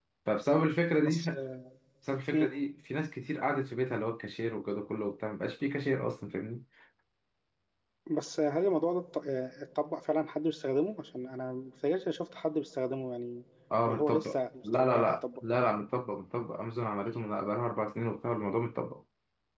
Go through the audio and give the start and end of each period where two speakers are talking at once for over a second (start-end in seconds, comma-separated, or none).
13.9-15.4